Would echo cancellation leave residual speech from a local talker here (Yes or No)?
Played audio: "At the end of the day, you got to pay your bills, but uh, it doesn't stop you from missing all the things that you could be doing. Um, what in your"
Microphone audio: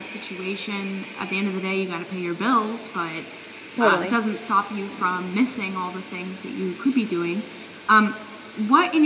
Yes